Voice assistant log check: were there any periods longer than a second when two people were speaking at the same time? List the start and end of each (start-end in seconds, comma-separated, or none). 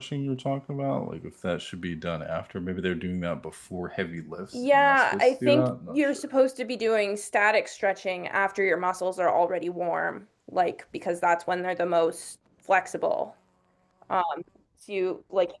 4.5-6.1